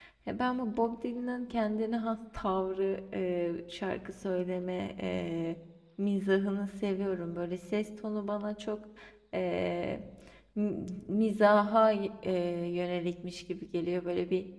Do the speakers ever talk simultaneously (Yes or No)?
No